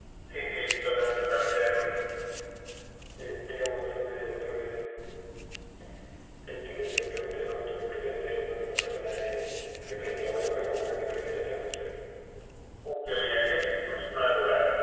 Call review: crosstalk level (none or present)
none